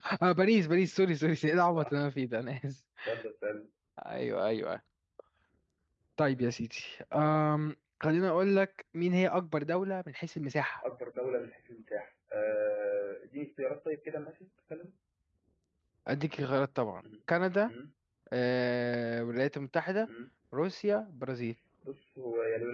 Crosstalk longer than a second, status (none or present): none